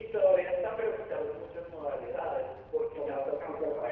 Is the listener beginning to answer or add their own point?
Yes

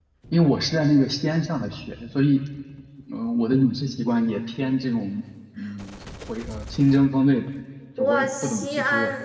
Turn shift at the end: Yes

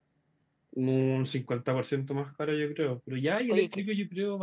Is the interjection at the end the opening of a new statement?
No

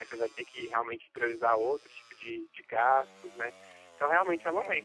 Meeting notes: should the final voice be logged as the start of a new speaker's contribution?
No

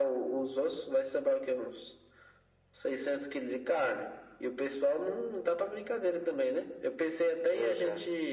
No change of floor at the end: Yes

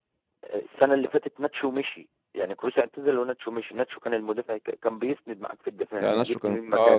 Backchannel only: No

